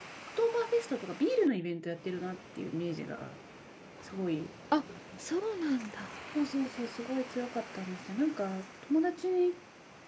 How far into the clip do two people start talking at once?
none

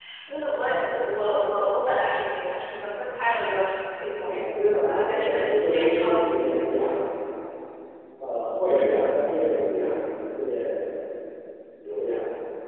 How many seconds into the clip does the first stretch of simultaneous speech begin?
4 s

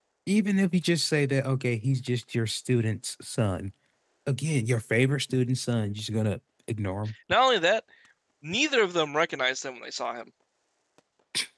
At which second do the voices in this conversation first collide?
none

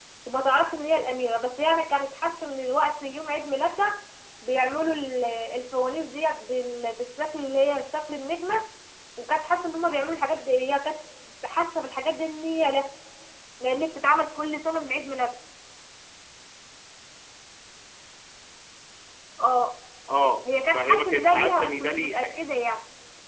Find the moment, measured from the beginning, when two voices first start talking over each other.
21 s

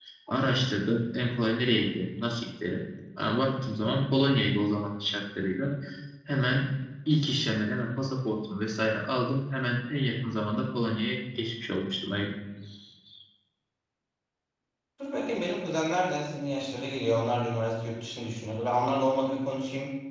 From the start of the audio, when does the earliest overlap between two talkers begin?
none

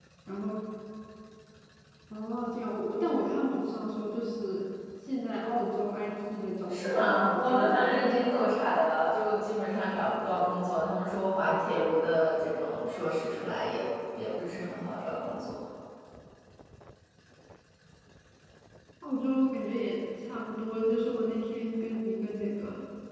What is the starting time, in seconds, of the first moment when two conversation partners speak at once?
7 s

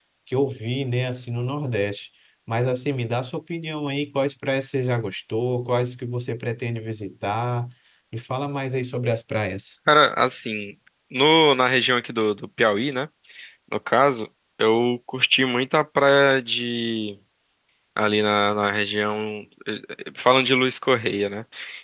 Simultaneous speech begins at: none

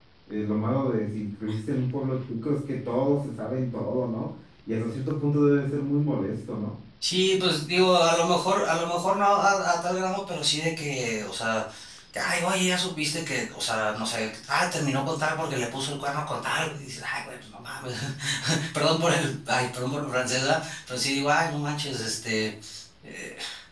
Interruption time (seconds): none

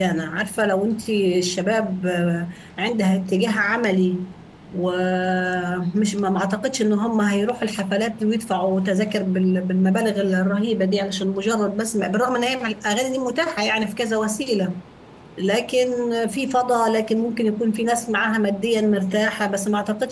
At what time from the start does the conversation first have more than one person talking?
none

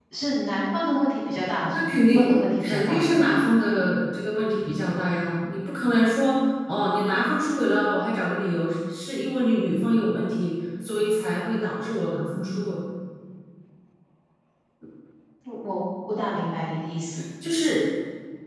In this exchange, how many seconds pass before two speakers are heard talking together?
2 s

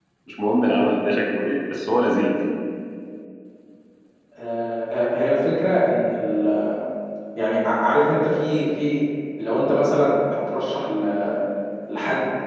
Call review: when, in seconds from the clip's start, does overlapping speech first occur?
none

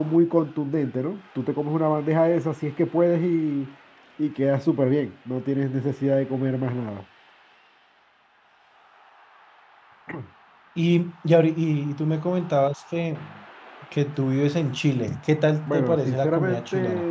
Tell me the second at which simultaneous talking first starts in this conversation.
16 s

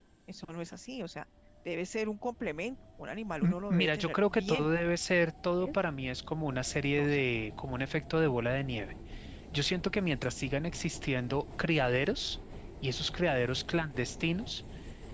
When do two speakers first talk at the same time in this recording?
3 s

